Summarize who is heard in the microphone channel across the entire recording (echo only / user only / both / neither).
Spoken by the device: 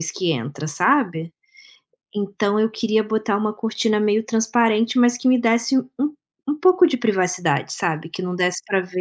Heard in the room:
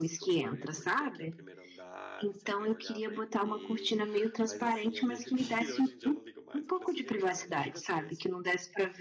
both